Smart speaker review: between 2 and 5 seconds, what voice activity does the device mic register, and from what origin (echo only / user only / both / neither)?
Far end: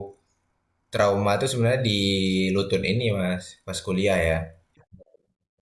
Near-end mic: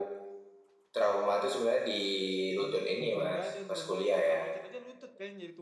both